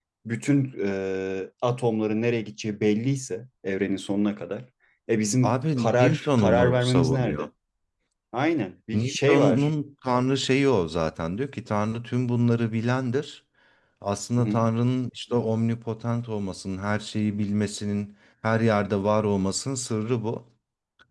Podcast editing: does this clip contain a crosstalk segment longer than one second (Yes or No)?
Yes